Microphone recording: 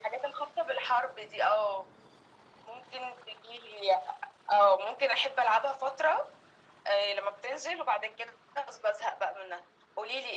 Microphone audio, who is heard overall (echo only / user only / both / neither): echo only